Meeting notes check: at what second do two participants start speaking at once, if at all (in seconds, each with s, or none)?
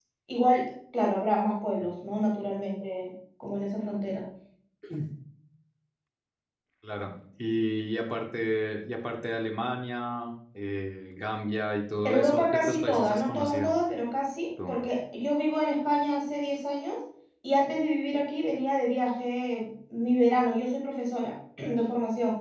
12.1 s